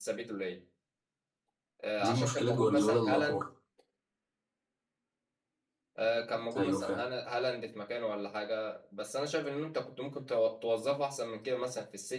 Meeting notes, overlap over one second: present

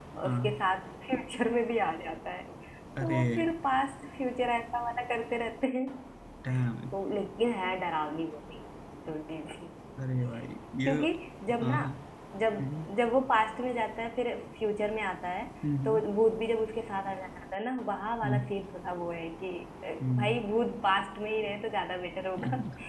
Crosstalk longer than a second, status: none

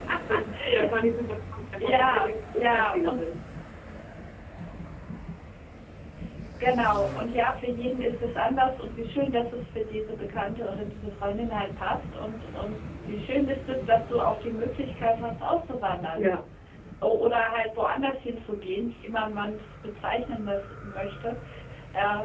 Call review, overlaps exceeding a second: present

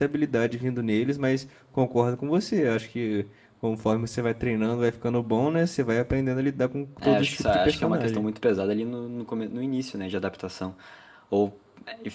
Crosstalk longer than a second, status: present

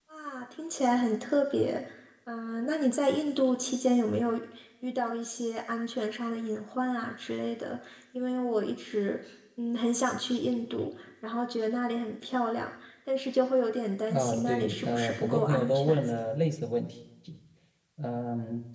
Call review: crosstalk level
present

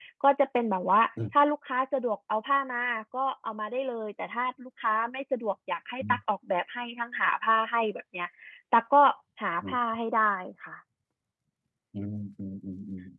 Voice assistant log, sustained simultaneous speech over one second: none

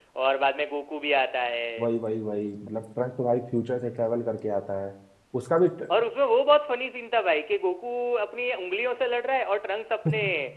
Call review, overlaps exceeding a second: none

